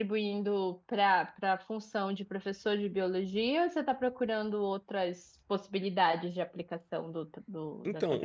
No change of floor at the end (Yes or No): No